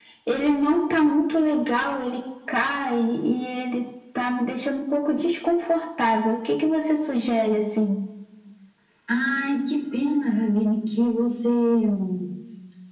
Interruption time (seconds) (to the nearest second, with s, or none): none